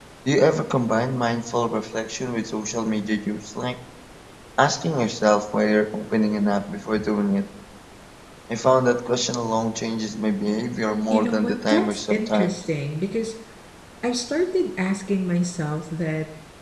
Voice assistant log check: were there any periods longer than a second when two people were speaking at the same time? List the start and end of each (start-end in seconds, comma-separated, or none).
11.1-12.6